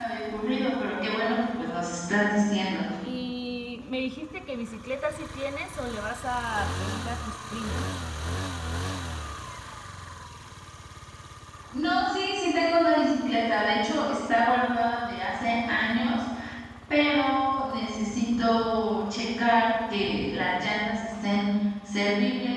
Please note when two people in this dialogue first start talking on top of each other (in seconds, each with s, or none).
none